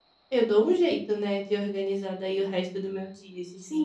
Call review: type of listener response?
taking over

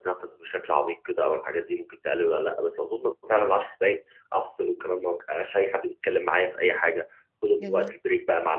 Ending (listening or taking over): listening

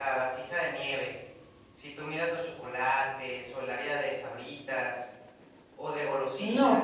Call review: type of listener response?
taking over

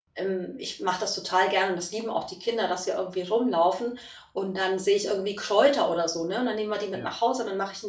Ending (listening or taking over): listening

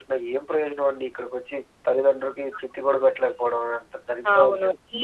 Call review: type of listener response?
taking over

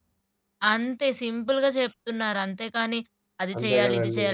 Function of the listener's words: listening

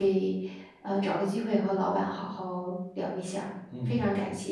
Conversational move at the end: taking over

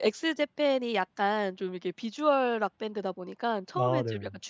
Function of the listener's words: listening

